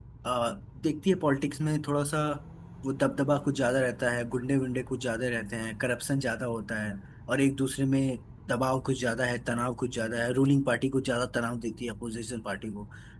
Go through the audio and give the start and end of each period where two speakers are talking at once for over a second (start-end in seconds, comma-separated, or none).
none